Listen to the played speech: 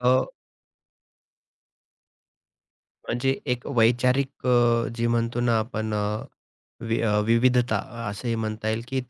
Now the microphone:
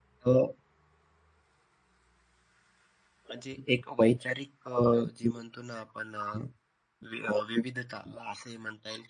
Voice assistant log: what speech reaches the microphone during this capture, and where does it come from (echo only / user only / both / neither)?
echo only